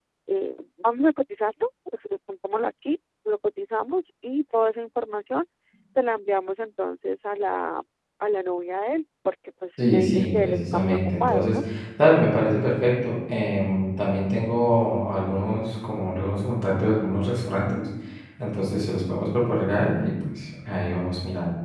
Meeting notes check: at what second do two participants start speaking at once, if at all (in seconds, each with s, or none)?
9.8 s